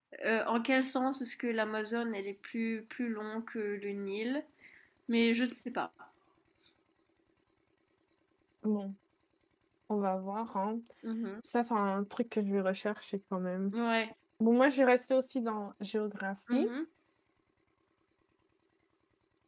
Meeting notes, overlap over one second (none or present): none